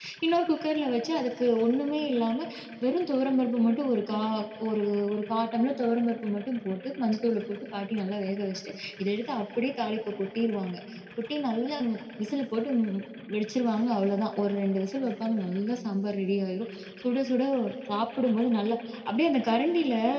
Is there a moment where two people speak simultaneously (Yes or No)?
No